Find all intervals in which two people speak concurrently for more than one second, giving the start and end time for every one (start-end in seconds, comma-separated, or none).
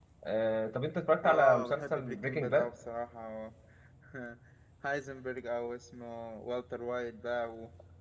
1.2-2.7